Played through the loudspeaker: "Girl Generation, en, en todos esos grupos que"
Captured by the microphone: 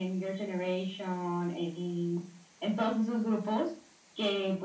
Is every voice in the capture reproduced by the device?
Yes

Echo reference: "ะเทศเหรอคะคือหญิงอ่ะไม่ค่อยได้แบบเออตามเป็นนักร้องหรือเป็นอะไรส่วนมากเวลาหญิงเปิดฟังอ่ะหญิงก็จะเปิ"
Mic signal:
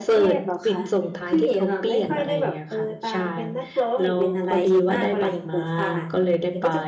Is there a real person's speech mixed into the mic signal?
Yes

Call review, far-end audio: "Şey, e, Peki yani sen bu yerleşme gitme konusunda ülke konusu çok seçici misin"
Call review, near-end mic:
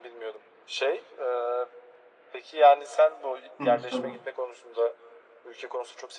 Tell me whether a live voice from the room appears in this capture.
Yes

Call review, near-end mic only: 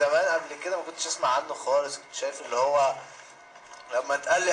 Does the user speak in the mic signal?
No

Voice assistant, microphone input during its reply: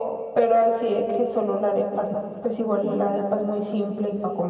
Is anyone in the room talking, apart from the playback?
No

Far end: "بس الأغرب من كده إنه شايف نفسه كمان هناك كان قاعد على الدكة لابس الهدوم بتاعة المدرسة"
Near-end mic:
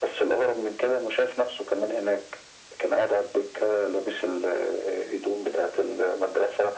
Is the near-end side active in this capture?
No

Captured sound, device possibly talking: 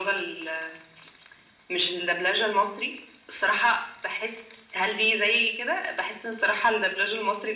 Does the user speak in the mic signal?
No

